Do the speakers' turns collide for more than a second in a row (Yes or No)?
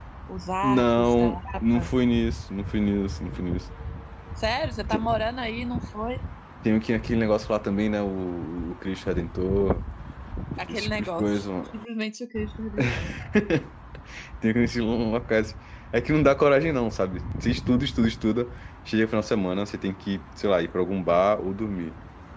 Yes